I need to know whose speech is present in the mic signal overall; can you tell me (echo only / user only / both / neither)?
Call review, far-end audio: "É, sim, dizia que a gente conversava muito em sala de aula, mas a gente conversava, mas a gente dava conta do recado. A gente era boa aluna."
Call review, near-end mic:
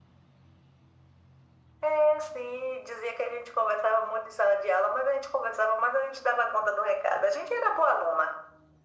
echo only